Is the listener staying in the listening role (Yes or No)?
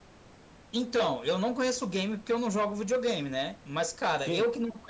Yes